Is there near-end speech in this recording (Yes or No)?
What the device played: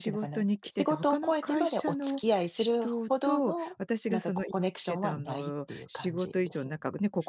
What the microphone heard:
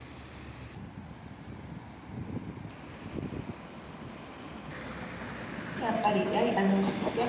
Yes